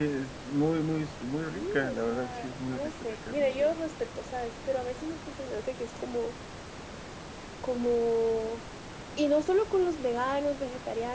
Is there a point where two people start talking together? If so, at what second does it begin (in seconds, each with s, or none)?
1.5 s